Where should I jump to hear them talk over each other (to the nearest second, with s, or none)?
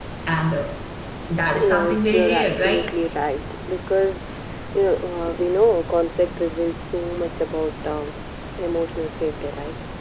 2 s